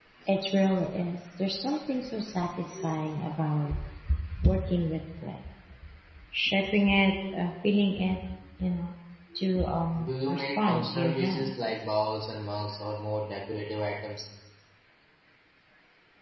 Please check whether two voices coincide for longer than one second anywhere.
Yes, from 10.0 s

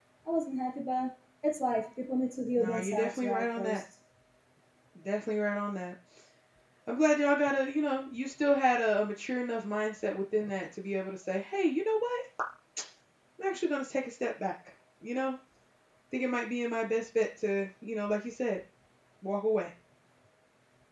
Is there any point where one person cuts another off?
Yes, from 2.6 s

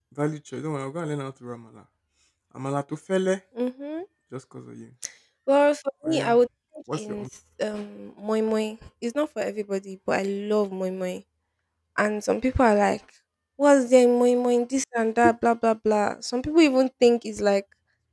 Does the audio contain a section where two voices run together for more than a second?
No

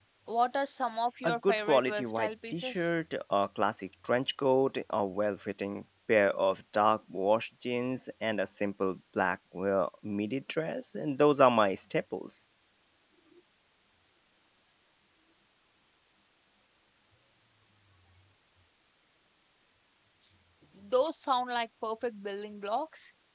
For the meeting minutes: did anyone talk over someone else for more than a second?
Yes, from 1.2 s

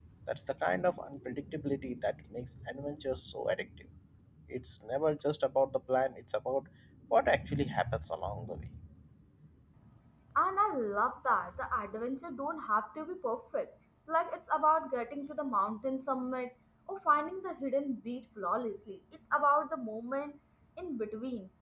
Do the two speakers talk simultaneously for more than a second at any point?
No

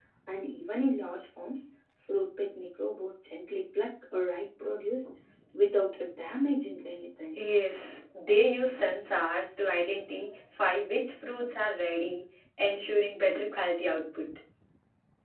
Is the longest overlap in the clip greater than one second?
No

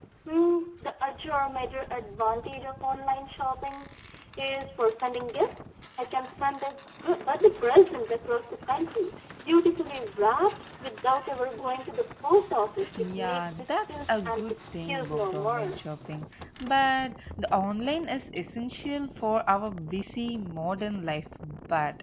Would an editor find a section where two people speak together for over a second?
Yes, from 12.8 s

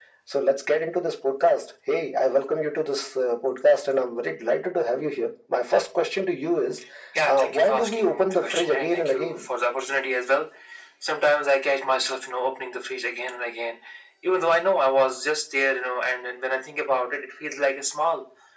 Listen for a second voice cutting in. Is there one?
Yes, from 7.2 s

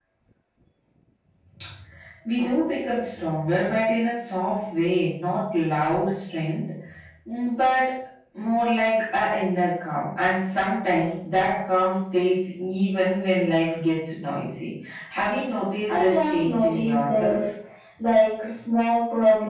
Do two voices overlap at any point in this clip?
Yes, from 15.9 s

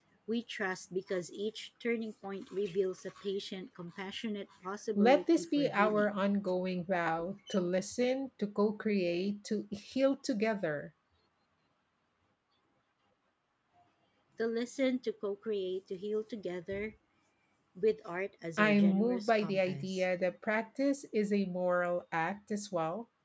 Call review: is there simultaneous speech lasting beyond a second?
Yes, from 5.0 s

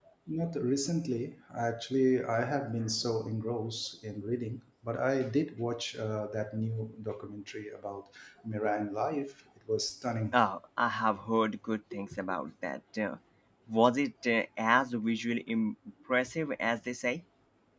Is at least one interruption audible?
No

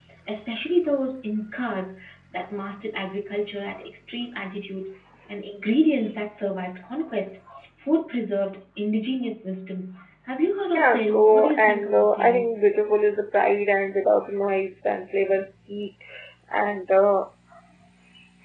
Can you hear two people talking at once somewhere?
Yes, from 10.7 s

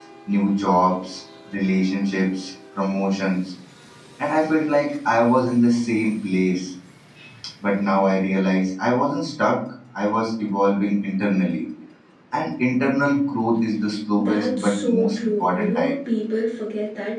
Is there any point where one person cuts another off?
Yes, from 14.2 s

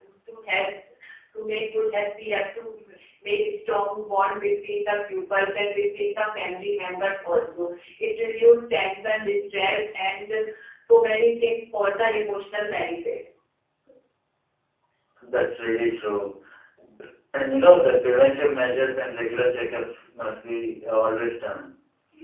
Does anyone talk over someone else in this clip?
No

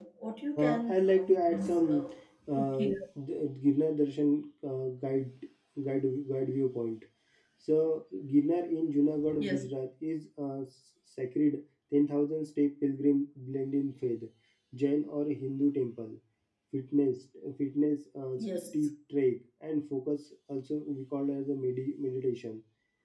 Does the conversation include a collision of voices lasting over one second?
Yes, from 0.6 s

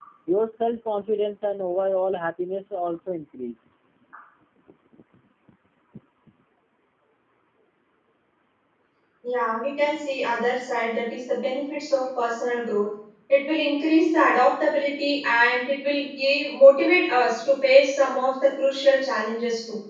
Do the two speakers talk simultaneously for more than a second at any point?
No

